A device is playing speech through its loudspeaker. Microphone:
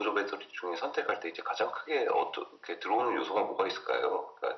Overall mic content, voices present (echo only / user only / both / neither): echo only